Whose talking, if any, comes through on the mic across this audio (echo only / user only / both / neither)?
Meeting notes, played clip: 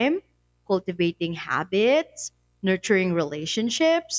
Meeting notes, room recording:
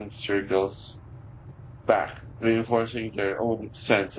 user only